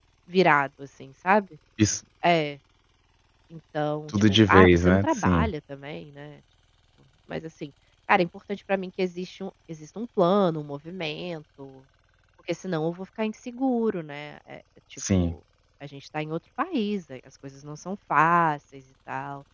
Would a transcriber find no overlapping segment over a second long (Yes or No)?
No